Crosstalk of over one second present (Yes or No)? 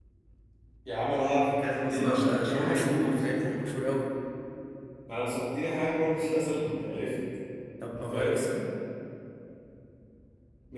Yes